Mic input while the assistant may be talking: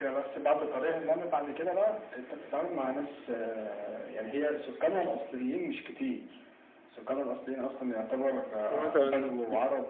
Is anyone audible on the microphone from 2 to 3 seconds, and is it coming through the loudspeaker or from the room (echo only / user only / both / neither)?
echo only